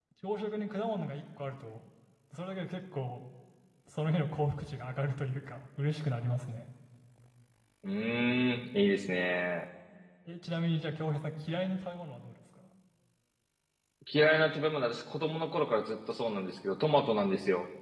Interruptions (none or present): none